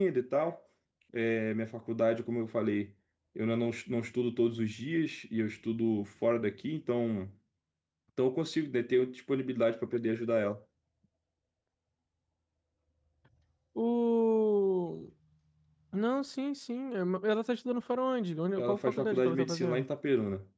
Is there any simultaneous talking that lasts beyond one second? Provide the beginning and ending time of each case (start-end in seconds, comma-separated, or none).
18.6-19.8